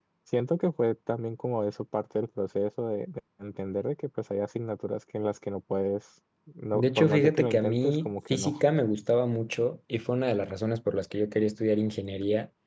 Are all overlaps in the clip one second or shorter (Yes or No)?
No